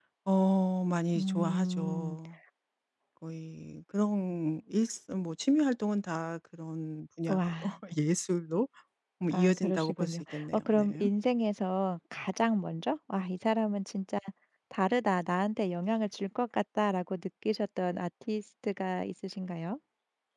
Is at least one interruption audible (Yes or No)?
Yes